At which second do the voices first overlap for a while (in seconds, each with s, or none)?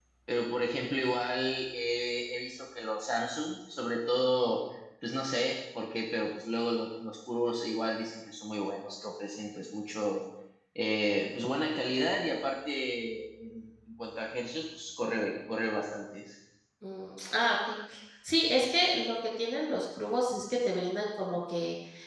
none